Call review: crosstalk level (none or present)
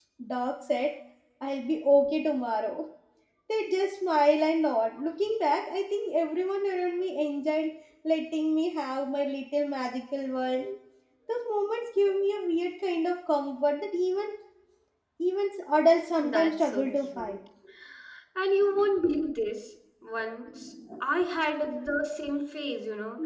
present